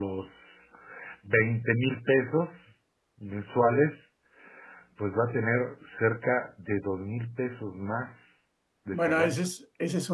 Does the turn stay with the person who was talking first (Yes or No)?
No